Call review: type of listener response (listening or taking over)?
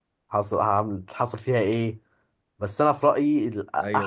taking over